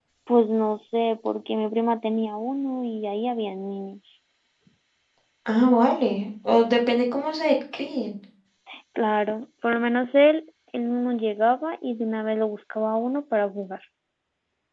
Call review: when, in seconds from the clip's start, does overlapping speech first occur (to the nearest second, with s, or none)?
none